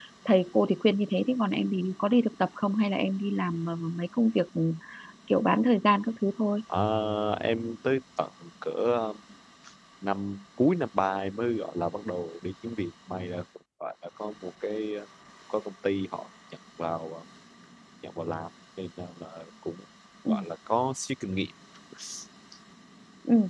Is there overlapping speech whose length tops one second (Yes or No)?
No